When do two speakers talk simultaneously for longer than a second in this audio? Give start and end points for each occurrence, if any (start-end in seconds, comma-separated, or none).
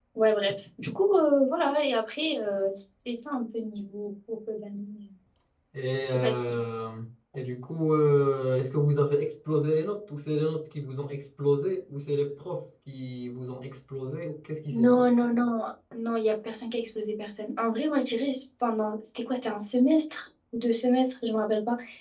none